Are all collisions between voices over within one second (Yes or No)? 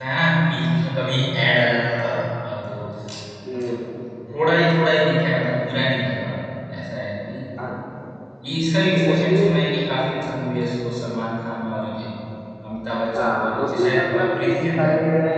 No